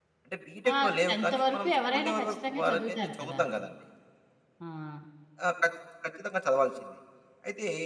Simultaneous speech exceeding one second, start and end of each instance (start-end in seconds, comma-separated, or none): 0.7-3.4